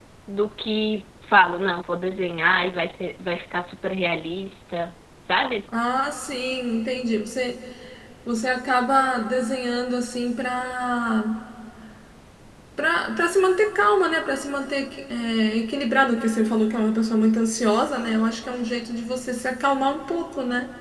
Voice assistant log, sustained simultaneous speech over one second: none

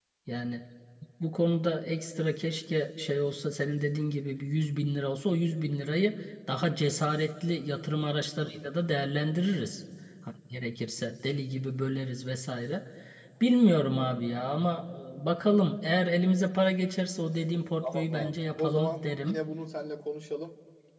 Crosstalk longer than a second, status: present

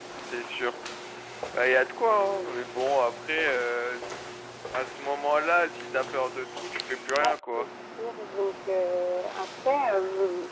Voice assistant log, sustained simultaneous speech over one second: none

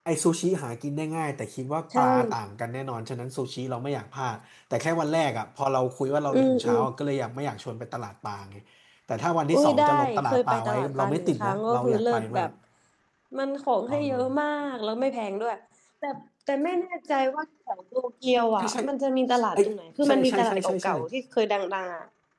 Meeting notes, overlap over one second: present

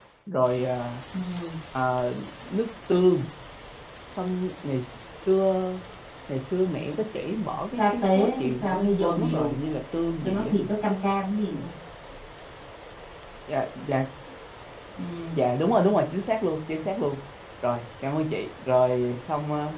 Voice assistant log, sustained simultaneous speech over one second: present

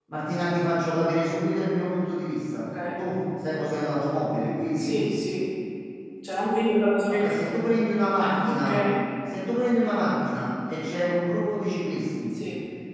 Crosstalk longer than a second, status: none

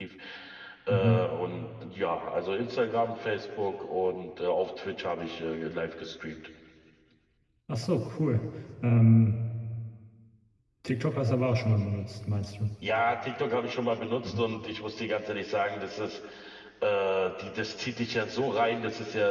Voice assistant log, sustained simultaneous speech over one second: none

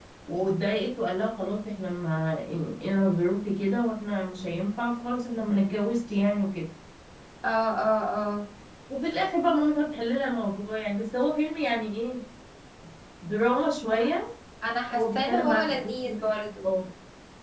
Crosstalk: present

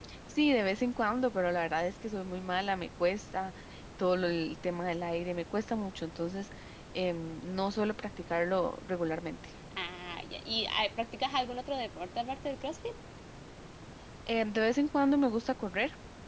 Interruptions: none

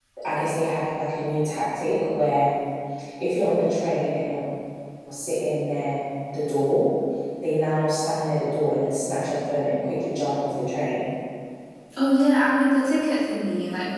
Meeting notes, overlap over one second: none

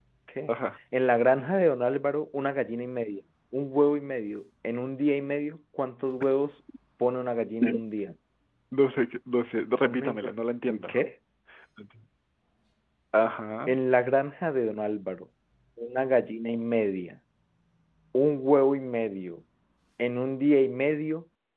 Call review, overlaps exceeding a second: none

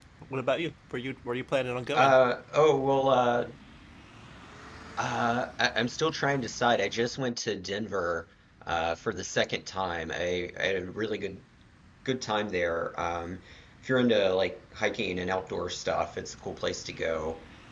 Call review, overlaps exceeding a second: none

